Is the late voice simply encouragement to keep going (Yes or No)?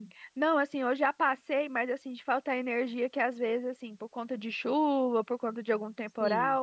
Yes